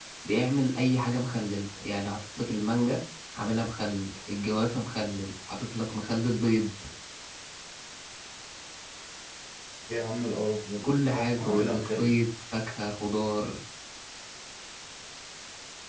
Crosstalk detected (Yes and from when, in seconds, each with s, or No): Yes, from 10.8 s